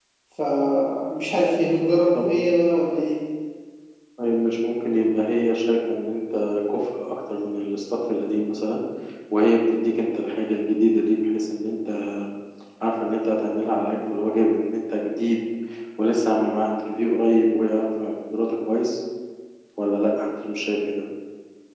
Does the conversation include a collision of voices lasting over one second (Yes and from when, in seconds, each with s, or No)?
No